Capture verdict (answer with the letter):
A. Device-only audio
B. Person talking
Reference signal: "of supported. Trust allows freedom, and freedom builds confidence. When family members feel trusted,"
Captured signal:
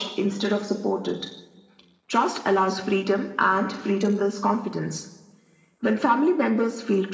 A